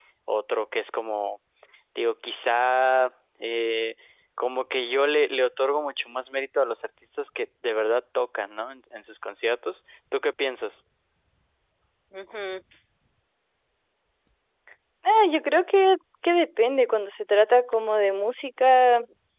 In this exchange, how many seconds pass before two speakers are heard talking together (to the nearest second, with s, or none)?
none